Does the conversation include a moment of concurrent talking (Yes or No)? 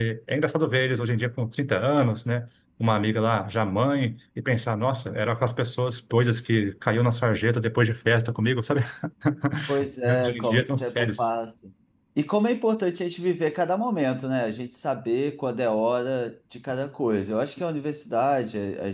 Yes